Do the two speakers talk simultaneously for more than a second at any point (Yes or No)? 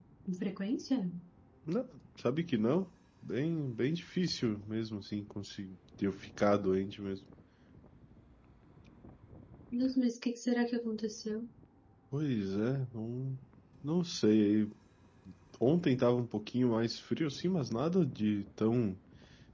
No